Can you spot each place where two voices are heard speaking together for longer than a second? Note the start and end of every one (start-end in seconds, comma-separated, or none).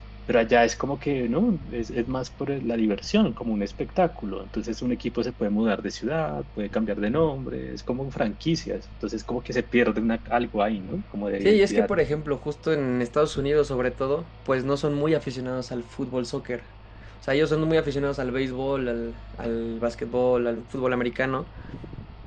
none